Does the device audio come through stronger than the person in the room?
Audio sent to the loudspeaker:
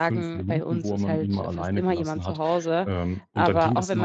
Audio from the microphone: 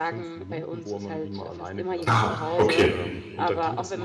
No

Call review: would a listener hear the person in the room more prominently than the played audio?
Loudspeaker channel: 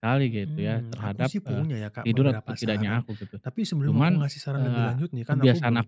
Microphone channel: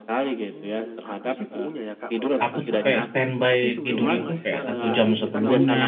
Yes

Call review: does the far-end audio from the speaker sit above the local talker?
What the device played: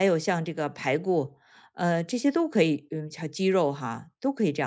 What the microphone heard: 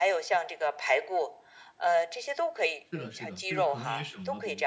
Yes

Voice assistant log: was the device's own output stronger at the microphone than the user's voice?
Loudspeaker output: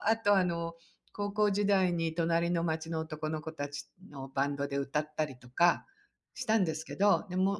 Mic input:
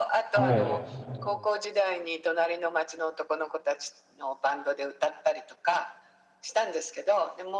No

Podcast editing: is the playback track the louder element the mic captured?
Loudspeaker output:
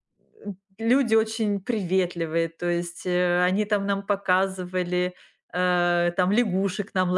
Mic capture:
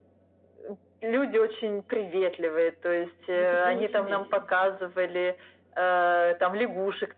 Yes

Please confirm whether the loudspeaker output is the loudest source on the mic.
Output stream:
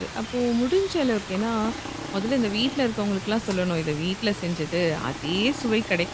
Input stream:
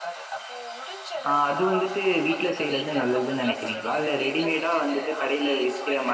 No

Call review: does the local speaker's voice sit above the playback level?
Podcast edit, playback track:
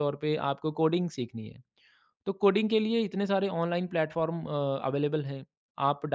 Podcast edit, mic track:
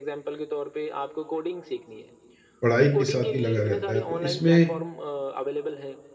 Yes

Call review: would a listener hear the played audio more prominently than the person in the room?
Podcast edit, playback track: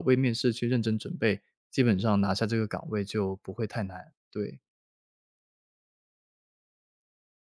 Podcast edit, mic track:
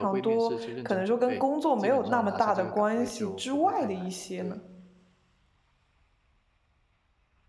No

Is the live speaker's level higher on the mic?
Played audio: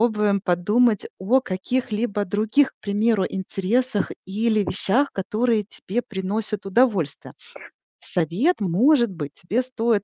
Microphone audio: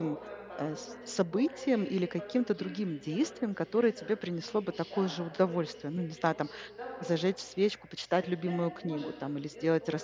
Yes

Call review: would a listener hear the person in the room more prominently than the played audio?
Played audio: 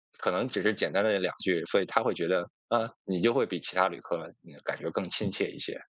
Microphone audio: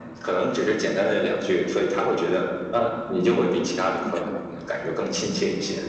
No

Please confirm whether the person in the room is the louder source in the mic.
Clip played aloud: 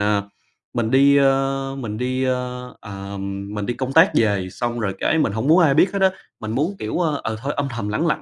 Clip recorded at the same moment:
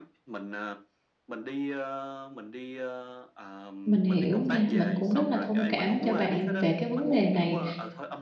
Yes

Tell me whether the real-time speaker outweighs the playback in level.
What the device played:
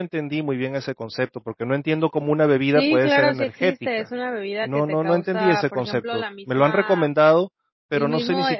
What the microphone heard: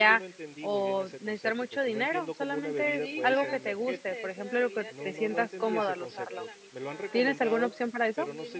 Yes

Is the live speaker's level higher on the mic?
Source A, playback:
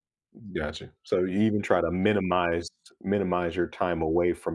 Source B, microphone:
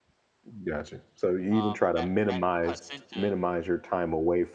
No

